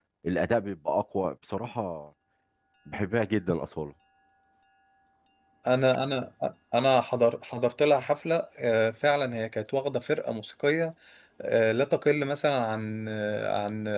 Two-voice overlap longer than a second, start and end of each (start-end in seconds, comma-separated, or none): none